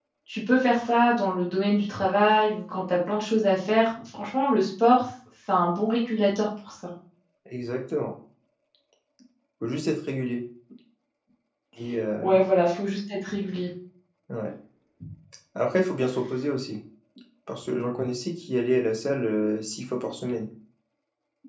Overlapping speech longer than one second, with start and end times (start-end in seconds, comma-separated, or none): none